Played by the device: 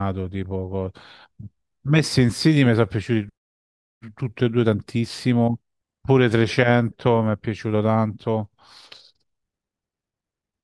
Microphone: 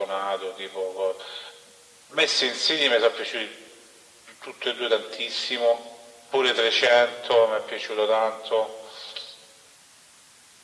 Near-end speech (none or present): none